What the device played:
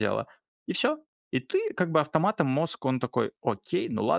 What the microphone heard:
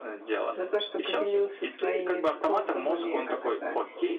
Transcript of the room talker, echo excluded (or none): за то, что поделился своими способами, как это,